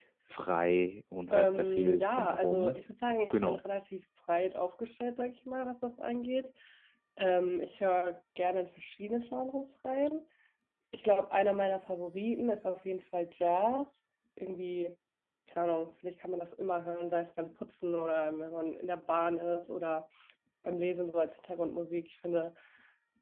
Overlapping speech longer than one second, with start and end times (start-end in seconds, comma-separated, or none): 1.3-2.8